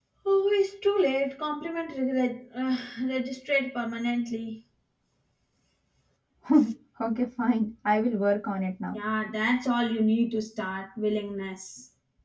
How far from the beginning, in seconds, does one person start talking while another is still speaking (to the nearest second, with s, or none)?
none